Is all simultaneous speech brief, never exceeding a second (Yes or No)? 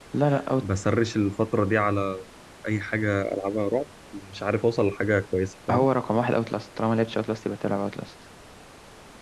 Yes